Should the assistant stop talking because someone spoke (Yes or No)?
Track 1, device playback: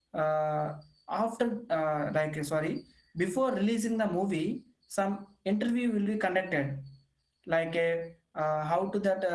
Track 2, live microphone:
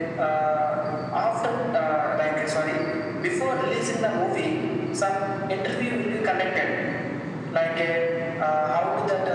No